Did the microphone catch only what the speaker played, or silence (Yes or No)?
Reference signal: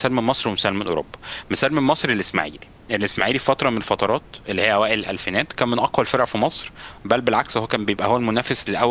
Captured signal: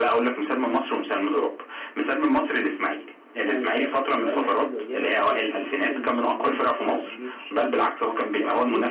No